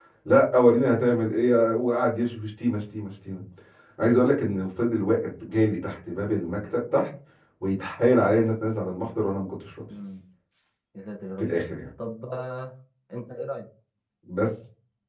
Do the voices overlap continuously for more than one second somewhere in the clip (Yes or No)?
No